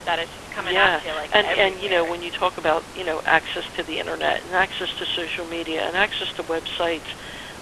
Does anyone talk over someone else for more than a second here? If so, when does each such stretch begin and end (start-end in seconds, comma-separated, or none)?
0.6-2.2